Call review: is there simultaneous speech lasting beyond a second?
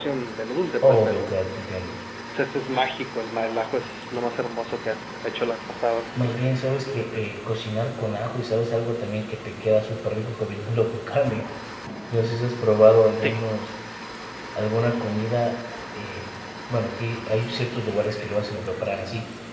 No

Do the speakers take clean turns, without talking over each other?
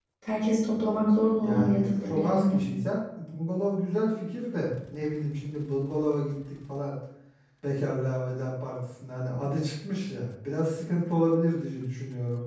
No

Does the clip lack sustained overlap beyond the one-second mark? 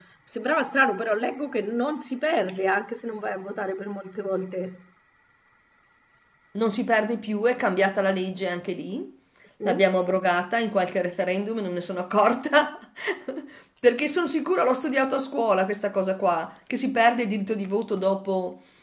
Yes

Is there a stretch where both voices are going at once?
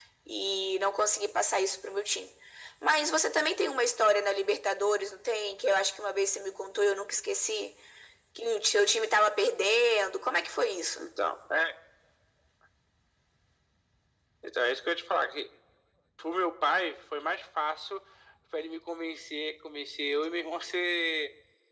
No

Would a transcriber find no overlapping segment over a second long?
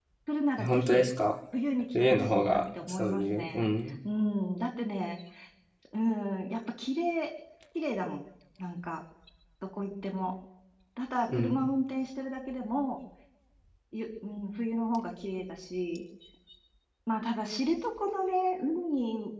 No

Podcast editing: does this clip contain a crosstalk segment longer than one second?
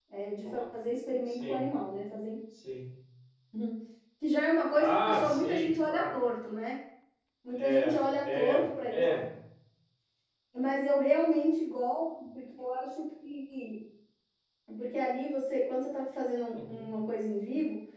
Yes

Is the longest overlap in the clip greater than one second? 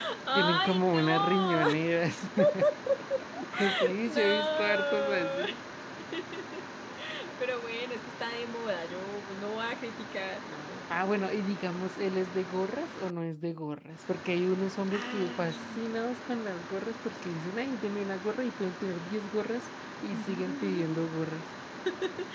Yes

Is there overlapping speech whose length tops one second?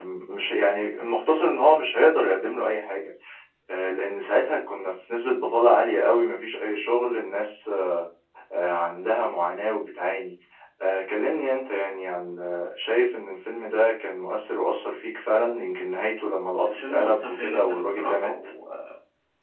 Yes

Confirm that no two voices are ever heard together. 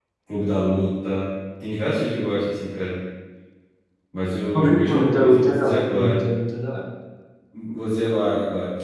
No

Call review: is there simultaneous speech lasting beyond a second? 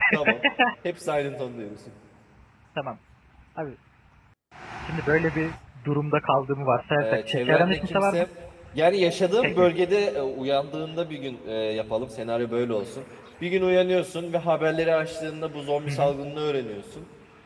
Yes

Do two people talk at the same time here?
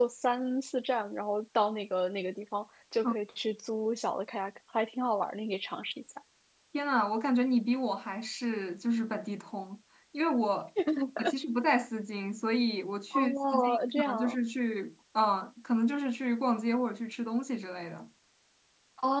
Yes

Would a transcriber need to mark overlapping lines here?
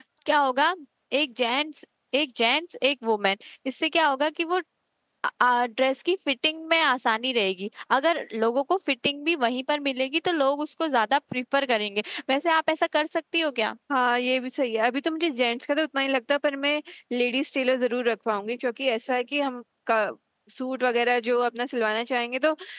No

